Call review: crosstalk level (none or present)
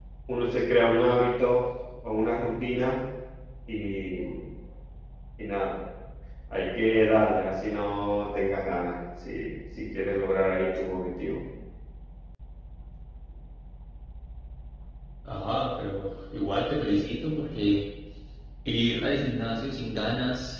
none